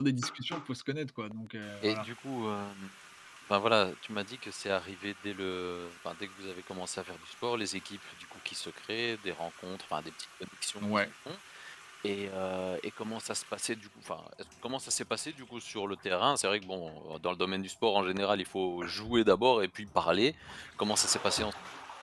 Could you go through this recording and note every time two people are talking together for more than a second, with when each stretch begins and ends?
none

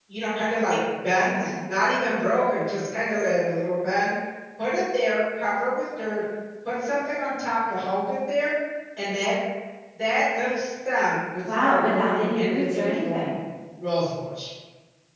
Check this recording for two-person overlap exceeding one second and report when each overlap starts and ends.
11.5-13.2

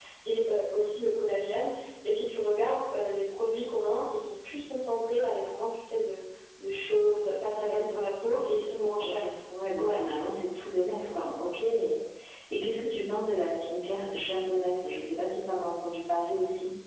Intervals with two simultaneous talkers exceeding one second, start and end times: 7.5-9.3

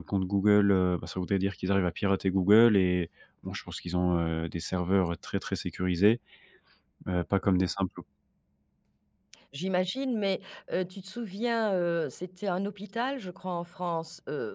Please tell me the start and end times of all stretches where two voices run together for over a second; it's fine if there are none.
none

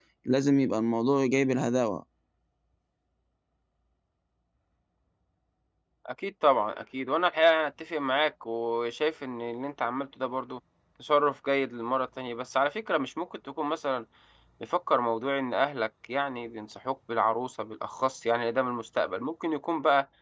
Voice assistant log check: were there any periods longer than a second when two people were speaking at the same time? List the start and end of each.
none

